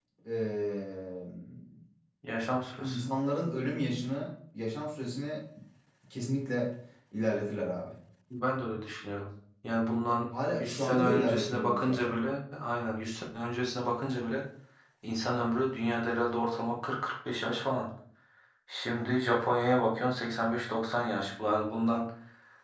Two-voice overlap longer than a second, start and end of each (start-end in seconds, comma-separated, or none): 10.5-12.2